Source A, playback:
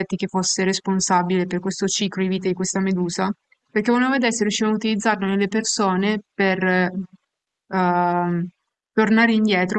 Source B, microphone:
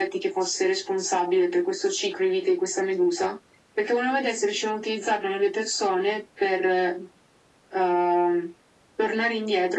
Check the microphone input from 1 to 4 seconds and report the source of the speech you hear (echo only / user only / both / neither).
echo only